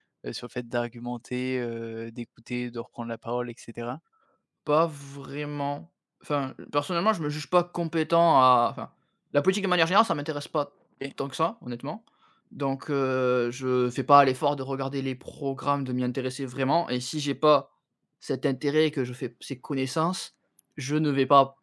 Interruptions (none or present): none